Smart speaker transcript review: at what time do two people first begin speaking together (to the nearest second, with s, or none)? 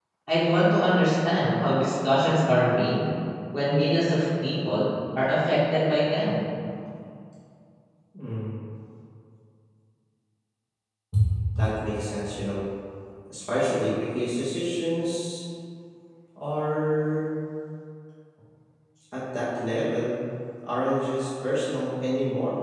none